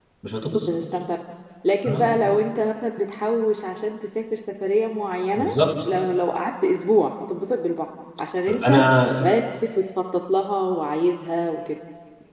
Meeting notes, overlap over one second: none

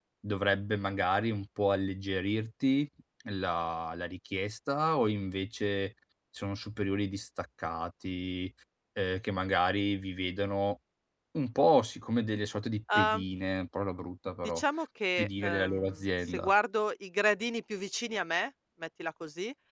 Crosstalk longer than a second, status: present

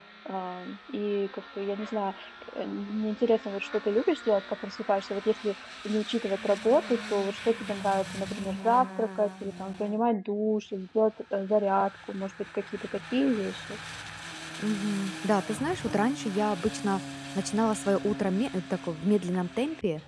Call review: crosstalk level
none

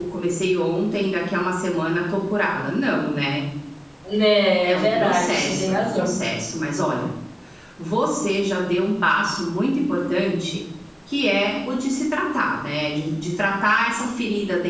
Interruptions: present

